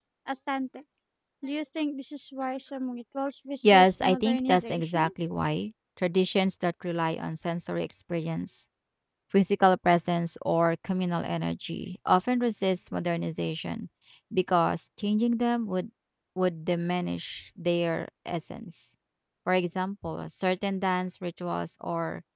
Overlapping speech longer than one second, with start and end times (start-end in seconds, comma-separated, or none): 3.6-5.1